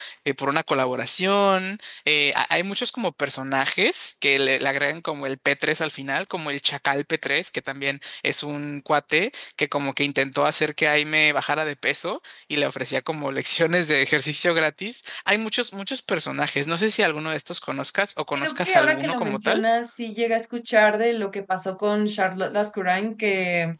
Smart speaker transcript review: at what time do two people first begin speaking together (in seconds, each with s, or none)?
18.4 s